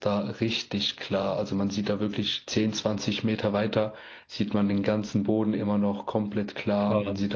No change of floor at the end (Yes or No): Yes